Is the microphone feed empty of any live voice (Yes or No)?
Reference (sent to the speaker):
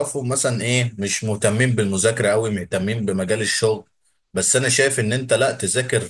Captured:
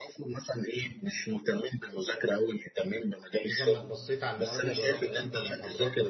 No